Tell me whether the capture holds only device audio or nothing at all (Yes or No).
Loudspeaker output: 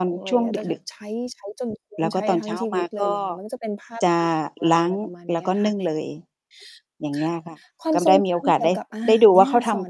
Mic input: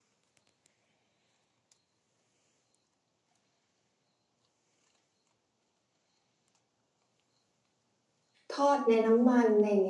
No